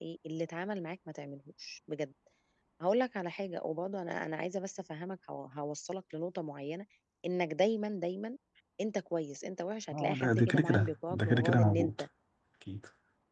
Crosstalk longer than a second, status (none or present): present